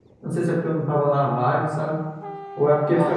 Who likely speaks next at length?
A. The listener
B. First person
B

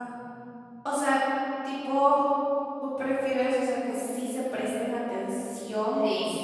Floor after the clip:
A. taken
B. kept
B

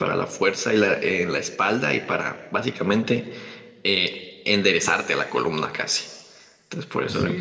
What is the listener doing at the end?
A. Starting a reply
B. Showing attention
A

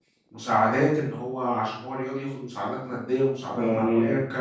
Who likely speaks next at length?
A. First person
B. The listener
A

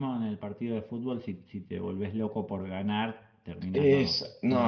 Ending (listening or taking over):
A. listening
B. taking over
B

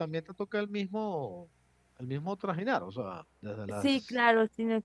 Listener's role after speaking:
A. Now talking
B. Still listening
A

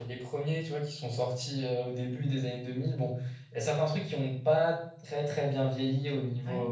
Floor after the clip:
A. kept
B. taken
A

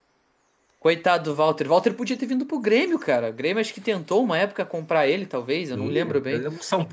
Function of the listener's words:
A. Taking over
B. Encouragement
A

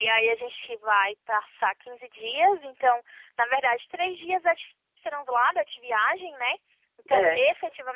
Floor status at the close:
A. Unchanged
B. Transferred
A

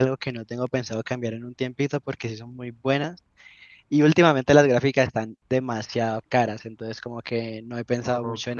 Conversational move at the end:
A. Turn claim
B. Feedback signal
A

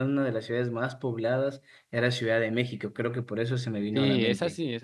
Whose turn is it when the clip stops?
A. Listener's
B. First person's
A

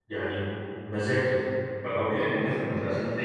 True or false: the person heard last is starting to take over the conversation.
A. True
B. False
B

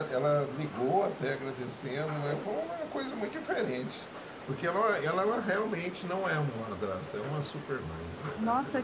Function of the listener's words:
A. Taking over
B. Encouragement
A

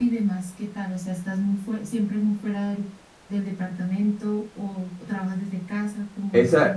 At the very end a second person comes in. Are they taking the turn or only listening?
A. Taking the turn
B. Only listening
A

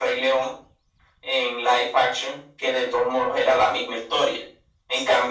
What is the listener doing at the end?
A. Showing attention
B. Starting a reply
A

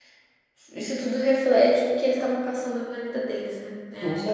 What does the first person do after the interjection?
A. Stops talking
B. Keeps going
A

